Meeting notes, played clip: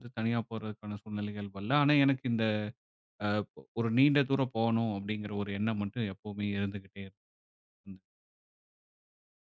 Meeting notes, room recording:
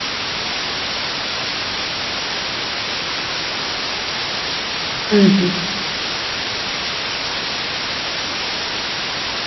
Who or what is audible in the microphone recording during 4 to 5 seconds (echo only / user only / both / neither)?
neither